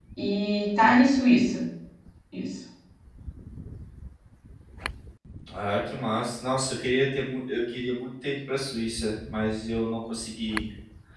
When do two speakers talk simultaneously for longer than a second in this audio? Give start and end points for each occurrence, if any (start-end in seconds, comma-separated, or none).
none